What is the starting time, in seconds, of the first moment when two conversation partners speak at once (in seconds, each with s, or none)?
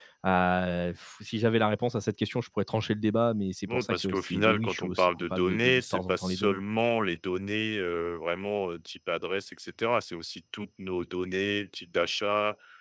3.7 s